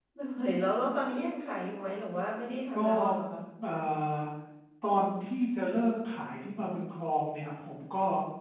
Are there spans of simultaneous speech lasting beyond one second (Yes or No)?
No